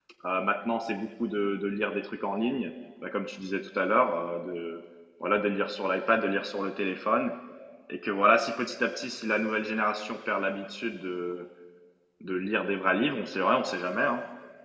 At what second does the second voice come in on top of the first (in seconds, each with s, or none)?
none